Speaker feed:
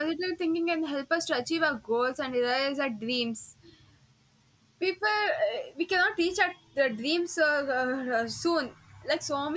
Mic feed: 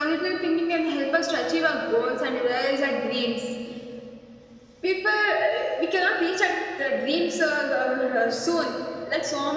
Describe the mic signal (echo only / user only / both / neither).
echo only